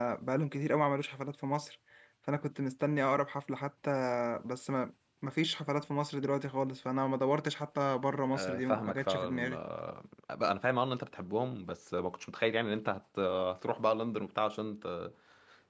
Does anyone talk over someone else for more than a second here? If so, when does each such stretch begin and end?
8.3-9.6

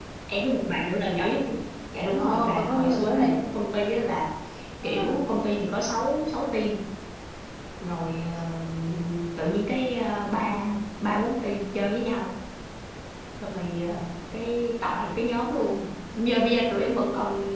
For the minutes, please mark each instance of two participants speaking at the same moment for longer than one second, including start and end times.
2.1-3.4

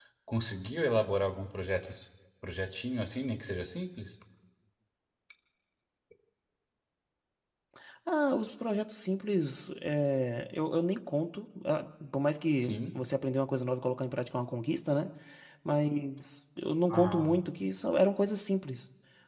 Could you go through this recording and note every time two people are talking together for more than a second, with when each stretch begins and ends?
none

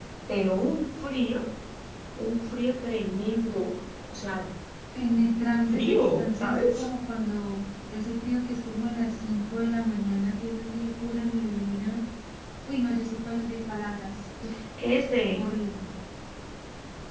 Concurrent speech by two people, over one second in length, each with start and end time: 5.6-6.9

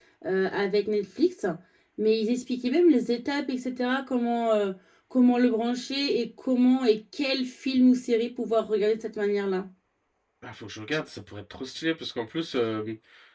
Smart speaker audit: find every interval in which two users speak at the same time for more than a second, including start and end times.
none

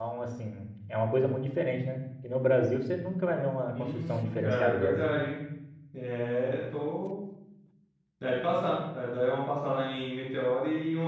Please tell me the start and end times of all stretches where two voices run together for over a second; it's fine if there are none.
3.7-5.0

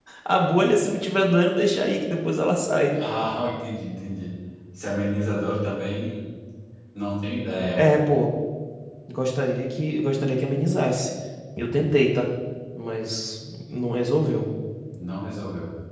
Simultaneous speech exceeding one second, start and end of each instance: none

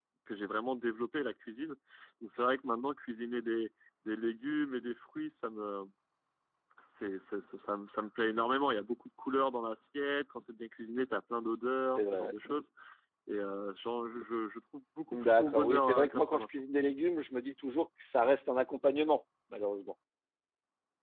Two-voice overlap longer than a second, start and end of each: 15.1-16.5

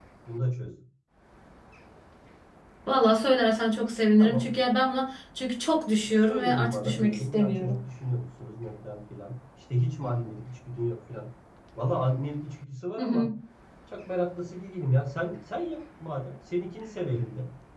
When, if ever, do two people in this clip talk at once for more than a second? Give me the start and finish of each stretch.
6.2-7.8

